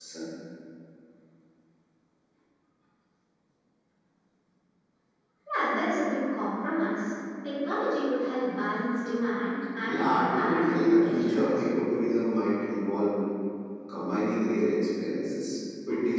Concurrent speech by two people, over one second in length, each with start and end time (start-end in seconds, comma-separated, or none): 9.8-11.5